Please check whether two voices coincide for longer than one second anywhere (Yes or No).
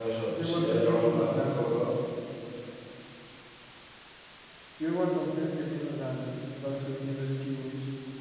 Yes